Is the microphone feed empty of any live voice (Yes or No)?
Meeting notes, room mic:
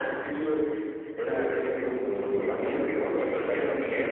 No